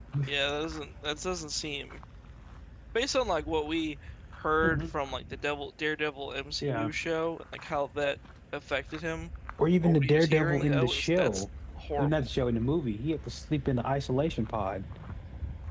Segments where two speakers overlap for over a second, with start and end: 9.8-11.4

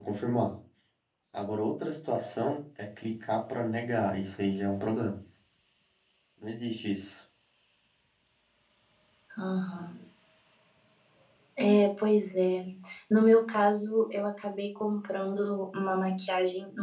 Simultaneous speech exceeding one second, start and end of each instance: none

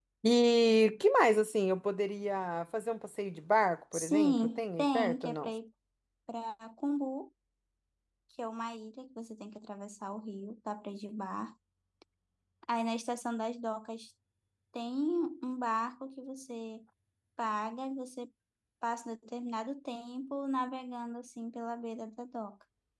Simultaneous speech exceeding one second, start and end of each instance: 3.9-5.5

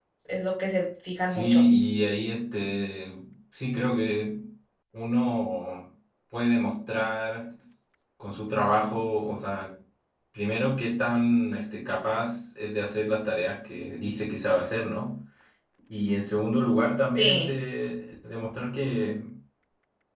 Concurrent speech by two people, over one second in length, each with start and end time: none

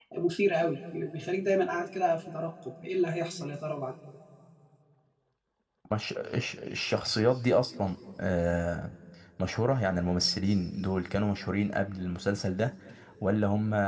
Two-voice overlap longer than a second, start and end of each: none

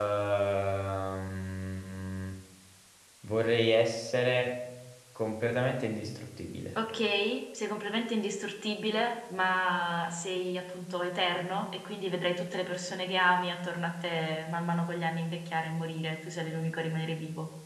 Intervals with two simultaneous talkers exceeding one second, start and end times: none

